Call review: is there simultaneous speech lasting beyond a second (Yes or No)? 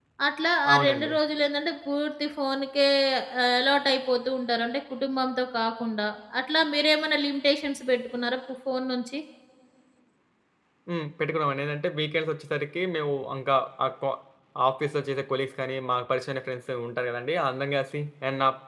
No